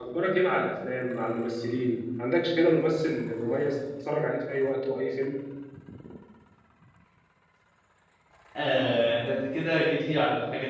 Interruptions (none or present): none